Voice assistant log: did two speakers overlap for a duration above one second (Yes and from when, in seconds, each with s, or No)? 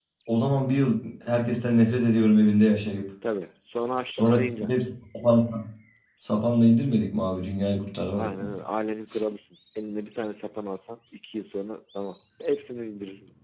No